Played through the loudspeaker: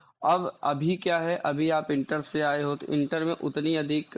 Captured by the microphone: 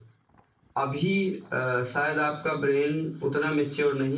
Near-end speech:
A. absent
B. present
B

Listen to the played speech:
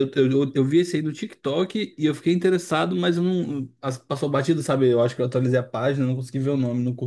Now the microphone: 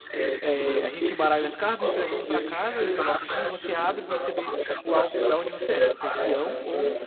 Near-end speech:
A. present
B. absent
A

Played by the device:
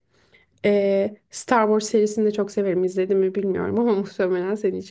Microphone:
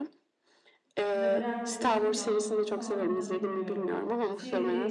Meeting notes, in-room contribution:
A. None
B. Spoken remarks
B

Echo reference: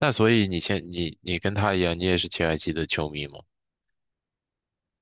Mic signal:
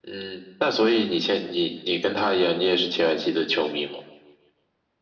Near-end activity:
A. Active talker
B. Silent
B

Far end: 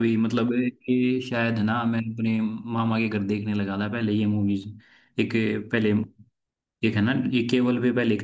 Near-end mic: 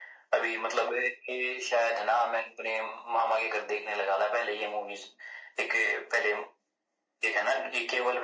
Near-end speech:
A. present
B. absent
B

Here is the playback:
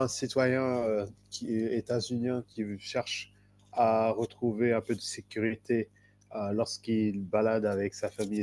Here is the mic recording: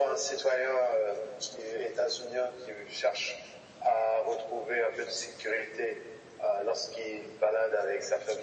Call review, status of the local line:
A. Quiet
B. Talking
A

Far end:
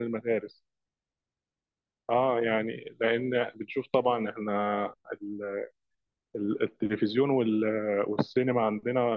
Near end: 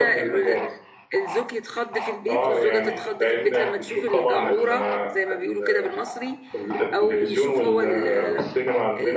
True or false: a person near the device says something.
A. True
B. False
A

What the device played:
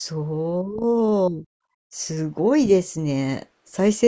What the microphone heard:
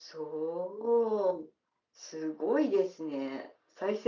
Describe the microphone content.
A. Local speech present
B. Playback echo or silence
B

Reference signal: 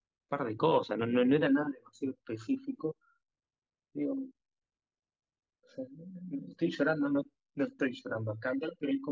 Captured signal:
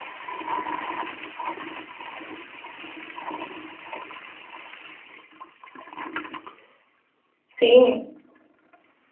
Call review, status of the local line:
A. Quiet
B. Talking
B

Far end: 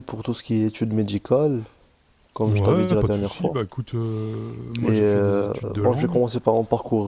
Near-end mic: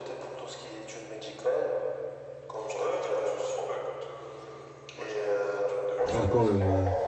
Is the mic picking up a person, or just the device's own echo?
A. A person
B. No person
A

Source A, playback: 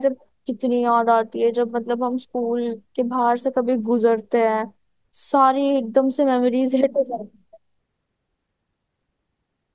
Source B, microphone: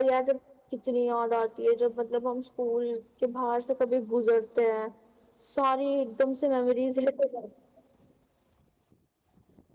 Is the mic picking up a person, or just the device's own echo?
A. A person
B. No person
B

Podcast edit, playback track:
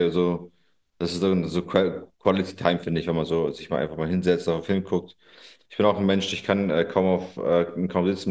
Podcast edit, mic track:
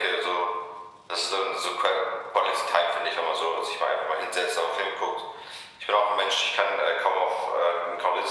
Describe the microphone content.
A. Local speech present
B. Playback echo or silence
B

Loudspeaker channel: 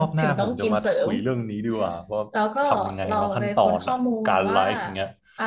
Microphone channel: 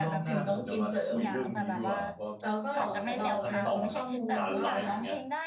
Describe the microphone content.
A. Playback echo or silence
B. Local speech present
B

